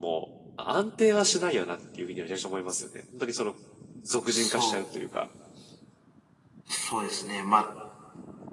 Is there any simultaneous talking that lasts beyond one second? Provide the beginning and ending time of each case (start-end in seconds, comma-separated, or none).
none